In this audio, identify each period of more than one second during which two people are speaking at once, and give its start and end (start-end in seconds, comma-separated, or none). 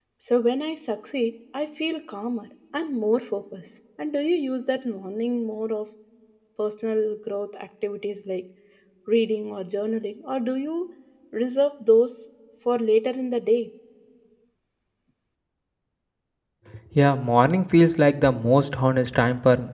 none